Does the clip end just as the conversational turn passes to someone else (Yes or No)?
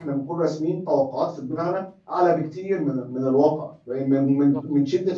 No